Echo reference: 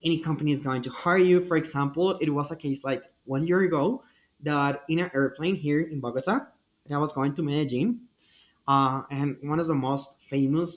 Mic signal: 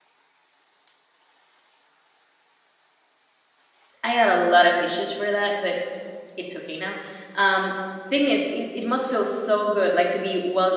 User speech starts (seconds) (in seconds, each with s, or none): 4.0 s